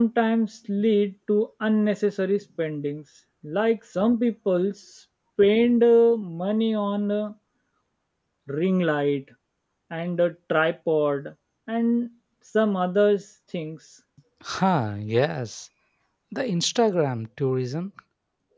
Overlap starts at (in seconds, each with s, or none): none